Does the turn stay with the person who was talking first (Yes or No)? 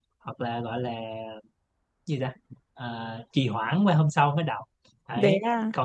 Yes